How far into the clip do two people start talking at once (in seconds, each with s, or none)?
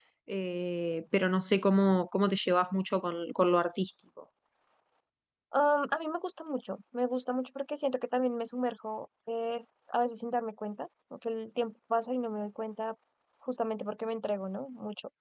none